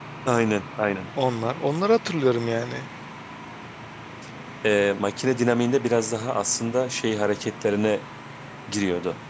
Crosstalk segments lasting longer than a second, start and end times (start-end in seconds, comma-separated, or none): none